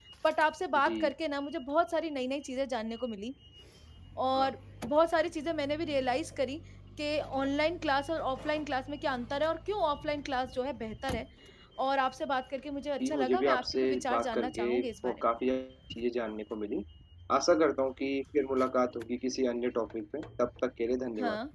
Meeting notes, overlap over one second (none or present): present